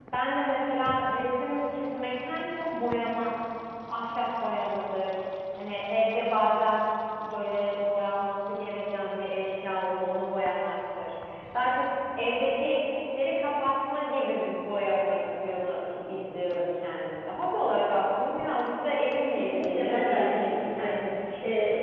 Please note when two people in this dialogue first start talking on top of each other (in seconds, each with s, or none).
19.4 s